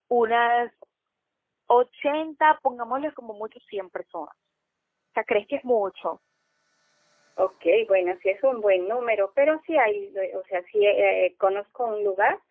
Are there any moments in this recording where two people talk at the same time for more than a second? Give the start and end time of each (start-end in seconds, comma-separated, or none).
none